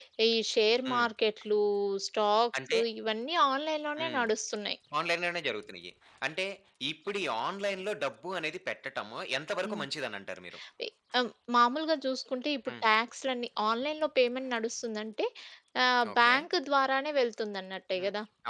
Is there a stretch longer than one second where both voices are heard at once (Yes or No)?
No